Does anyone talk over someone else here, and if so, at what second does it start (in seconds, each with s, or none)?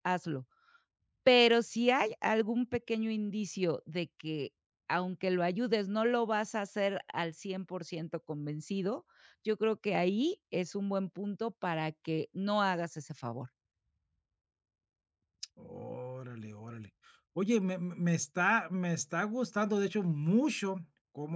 none